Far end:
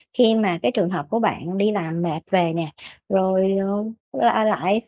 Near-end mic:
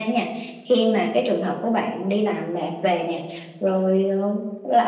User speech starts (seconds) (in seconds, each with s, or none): none